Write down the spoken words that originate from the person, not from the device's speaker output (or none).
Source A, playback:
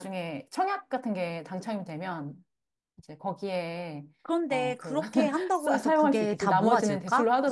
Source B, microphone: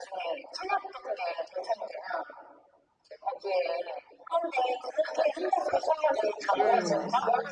음.